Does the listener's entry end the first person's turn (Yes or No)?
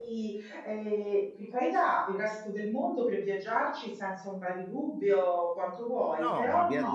Yes